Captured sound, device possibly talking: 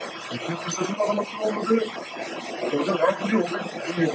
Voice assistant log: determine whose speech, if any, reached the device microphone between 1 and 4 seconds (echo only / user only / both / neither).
echo only